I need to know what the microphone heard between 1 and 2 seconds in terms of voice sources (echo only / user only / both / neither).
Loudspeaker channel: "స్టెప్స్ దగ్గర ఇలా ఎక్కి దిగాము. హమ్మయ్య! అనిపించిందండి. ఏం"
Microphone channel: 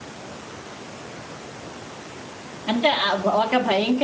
neither